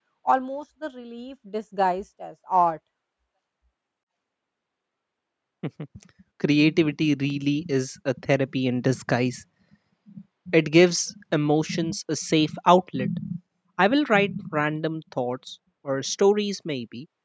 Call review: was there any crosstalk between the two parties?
No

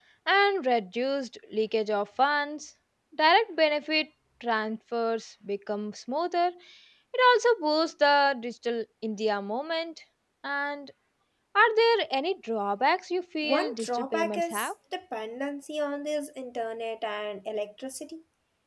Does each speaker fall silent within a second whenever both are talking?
No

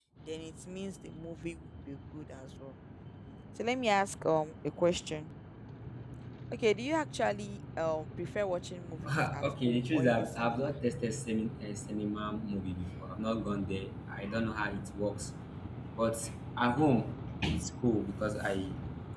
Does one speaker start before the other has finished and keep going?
Yes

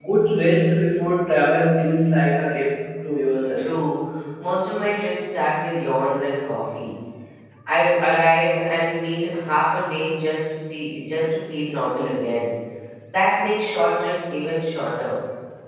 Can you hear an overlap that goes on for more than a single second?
No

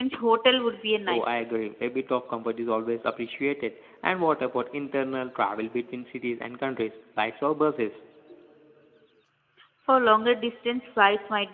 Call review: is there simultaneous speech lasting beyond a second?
No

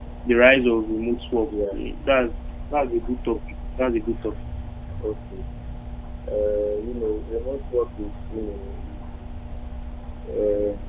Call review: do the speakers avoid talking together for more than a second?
Yes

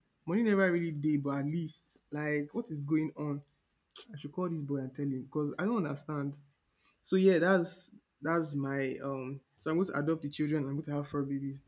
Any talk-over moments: No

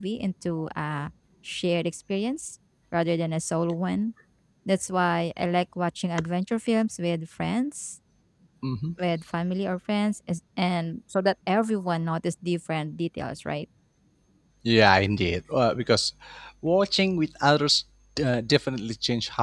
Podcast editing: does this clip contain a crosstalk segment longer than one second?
No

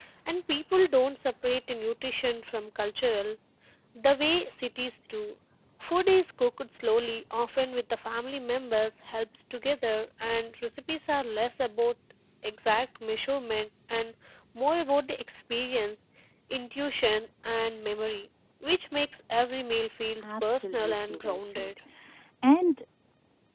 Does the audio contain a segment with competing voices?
Yes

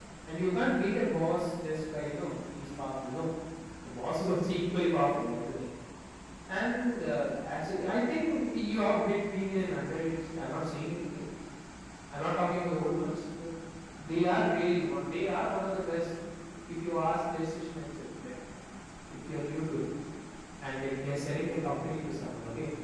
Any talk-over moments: No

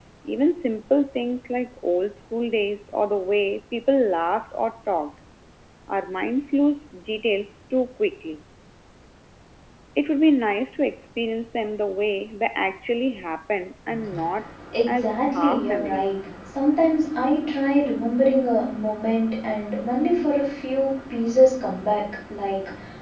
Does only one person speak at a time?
No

